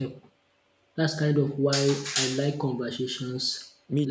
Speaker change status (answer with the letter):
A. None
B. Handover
B